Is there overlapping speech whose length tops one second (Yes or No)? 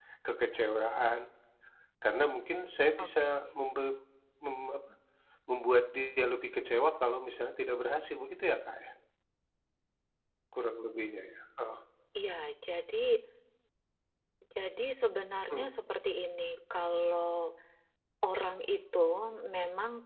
No